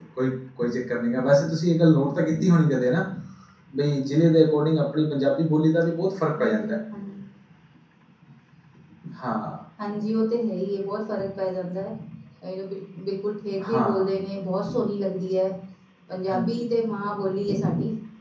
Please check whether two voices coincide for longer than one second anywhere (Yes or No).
No